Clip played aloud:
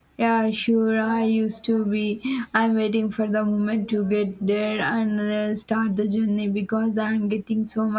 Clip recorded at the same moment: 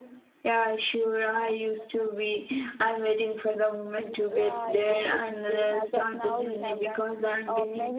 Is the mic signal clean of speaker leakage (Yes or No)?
No